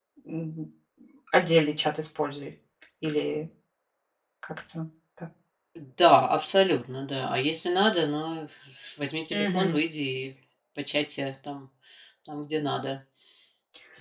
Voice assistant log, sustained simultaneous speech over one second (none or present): none